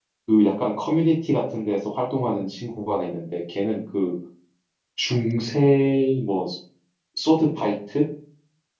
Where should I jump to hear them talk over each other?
none

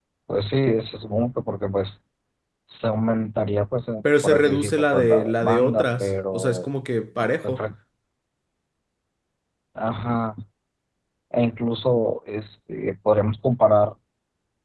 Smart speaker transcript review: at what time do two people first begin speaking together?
4.2 s

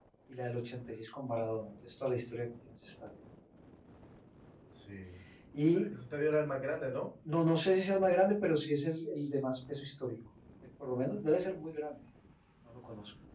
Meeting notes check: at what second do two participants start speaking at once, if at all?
none

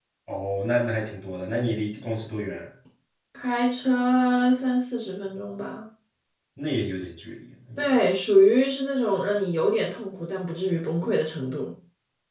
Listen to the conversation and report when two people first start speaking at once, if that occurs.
none

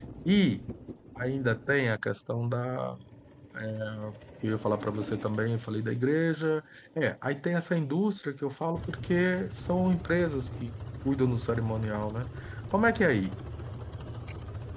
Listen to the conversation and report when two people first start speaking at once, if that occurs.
none

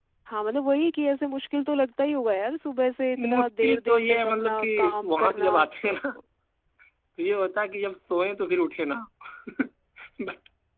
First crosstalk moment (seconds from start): 3.2 s

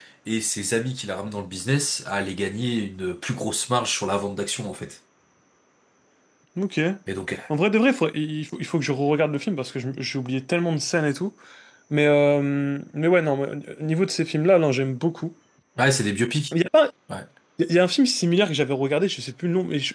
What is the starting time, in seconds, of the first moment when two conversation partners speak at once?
none

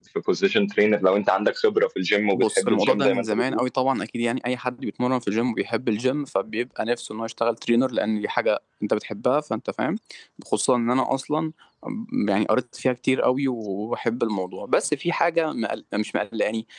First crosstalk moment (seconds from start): 2.3 s

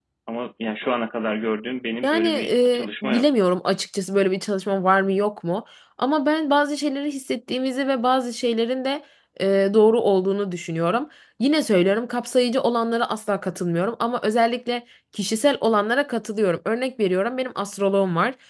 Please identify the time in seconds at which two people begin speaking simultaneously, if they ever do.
2.0 s

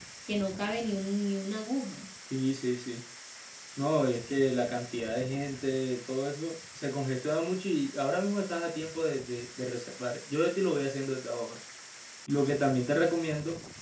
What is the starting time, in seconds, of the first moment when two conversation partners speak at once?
none

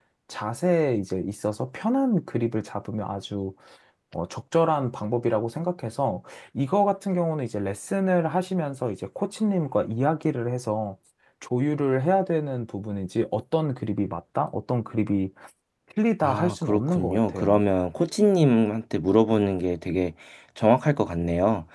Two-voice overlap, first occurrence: 16.2 s

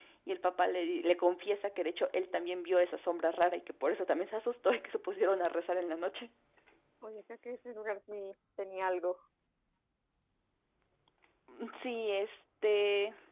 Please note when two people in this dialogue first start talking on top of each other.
none

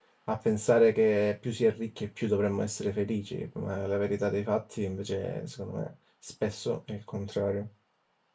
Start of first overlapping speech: none

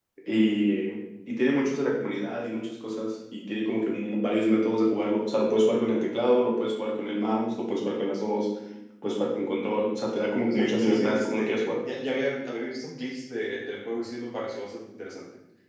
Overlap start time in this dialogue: 10.5 s

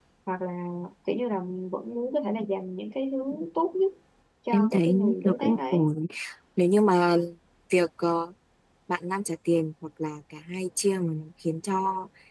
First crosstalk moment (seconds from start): 4.5 s

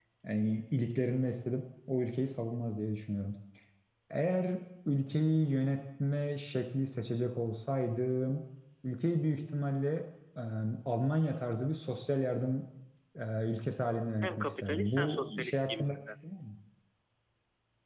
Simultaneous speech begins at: 14.2 s

